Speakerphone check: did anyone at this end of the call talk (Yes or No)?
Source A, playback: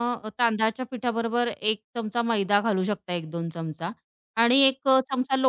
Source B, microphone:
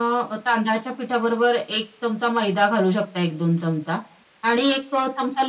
No